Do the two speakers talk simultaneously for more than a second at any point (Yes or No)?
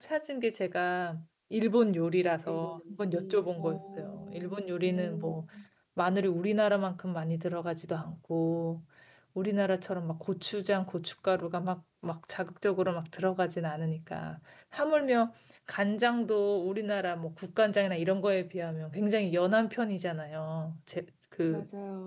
Yes